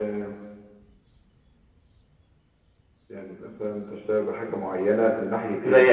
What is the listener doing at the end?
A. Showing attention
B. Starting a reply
B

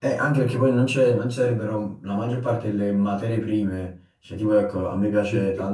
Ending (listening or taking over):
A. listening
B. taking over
A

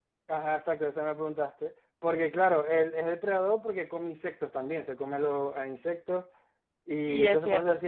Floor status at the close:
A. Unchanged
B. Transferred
B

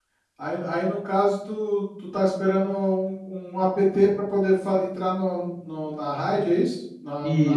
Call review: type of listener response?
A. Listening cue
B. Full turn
B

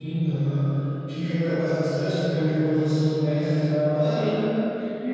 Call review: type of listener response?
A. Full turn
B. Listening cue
A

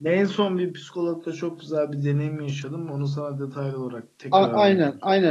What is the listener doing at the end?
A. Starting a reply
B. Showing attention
A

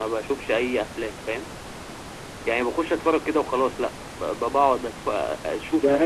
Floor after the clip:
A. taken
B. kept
A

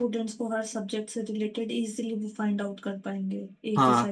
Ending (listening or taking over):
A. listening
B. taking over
B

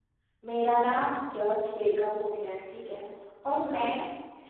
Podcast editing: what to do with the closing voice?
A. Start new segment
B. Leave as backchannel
B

